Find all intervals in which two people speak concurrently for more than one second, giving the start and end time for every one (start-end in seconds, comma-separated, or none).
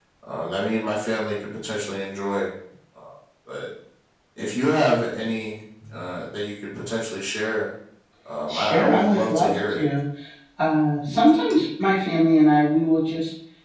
8.5-9.8